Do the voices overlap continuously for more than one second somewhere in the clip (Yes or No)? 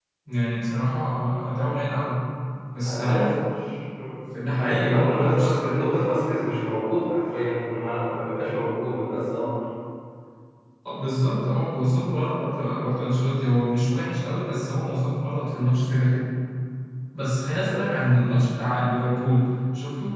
Yes